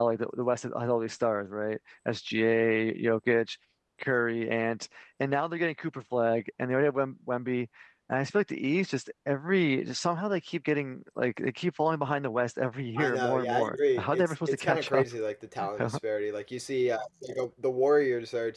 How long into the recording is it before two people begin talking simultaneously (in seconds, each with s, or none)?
13.0 s